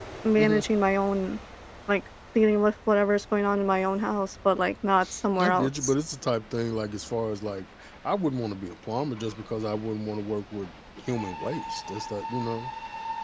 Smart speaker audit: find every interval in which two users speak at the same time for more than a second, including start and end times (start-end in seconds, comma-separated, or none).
none